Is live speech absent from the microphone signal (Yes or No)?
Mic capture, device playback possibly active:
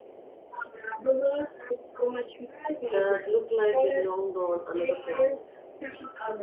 No